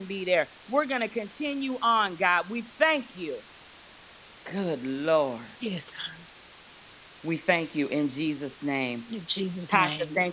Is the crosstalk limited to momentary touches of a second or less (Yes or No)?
Yes